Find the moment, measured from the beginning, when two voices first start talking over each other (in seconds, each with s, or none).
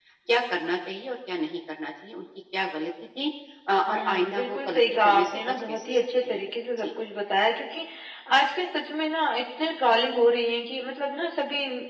3.9 s